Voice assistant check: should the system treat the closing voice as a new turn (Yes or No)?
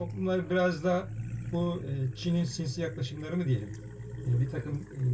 No